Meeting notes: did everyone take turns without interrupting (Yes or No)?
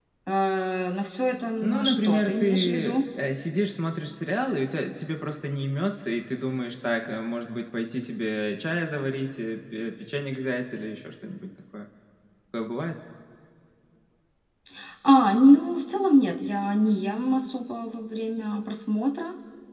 No